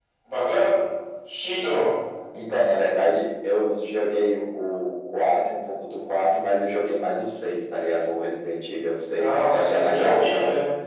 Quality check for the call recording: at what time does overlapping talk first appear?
9 s

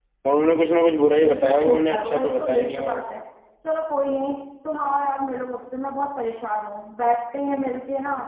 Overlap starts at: 1 s

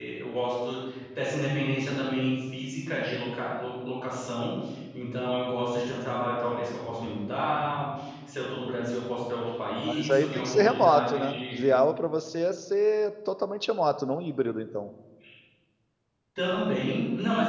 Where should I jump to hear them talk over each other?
10 s

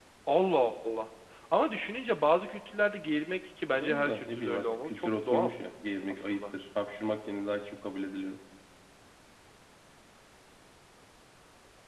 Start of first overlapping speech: 4 s

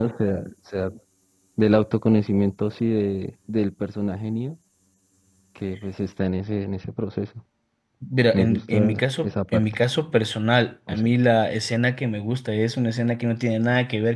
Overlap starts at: 8 s

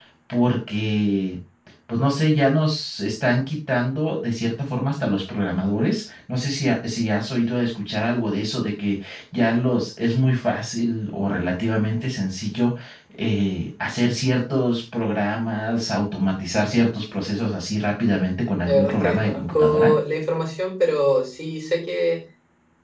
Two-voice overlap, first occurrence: 19 s

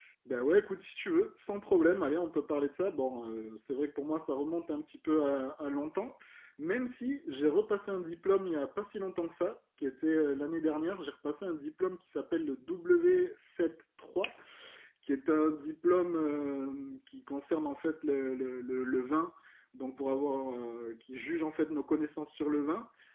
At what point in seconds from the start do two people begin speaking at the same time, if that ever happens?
none

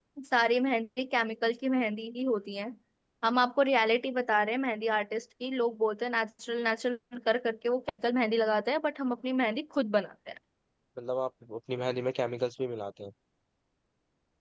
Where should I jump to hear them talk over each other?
none

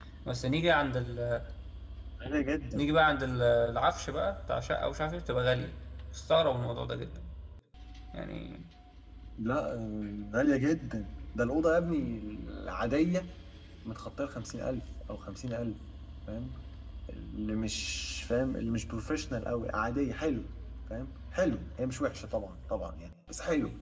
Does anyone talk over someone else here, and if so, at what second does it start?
none

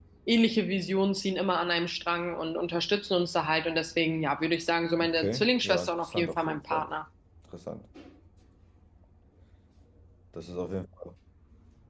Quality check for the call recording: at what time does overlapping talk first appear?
5 s

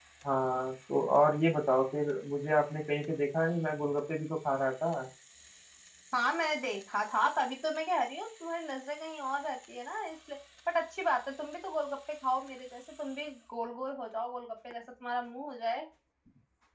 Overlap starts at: none

